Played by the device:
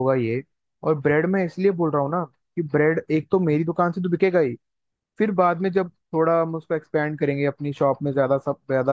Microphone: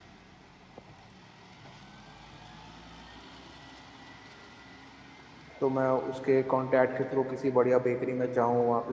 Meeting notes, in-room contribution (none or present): present